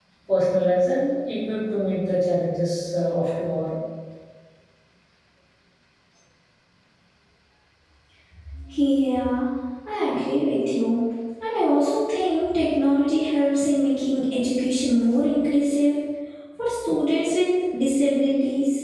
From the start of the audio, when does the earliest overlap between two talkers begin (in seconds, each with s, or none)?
none